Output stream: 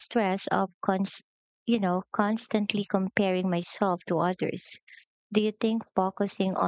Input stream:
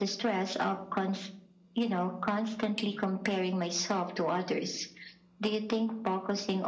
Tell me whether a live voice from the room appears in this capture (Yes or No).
No